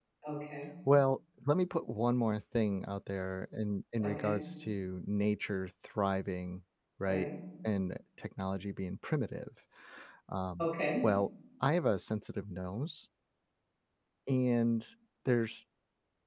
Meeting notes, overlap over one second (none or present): none